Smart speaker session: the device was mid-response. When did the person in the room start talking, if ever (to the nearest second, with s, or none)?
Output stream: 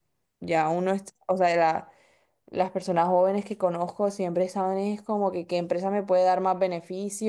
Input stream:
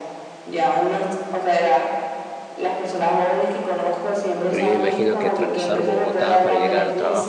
4 s